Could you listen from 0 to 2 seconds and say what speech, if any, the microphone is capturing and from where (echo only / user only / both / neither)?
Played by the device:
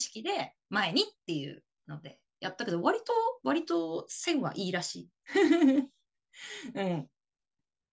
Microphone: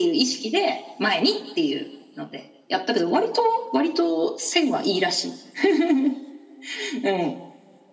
echo only